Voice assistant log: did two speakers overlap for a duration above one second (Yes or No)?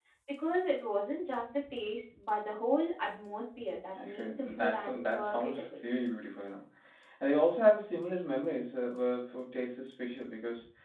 Yes